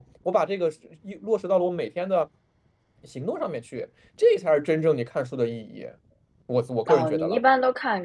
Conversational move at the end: taking over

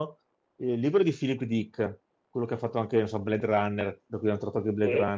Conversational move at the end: listening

